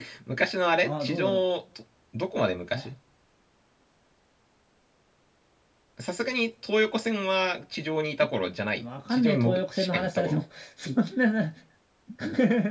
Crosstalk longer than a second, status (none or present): present